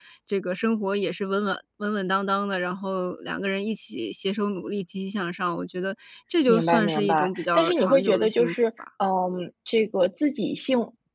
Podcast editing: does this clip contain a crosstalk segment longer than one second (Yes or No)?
Yes